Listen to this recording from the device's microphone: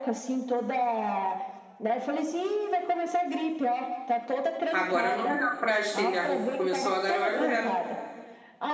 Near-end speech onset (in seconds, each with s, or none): 4.7 s